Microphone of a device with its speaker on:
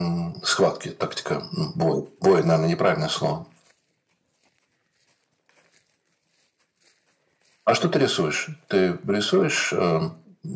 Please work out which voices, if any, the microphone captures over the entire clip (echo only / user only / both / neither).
echo only